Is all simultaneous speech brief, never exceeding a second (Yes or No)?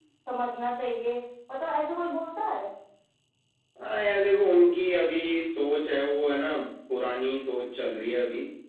Yes